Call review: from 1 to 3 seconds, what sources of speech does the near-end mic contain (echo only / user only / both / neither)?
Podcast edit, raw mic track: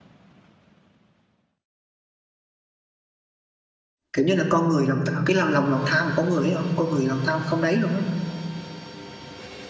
neither